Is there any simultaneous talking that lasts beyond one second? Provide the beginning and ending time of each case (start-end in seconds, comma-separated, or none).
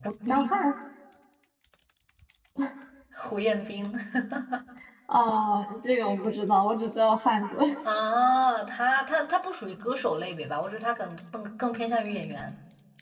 none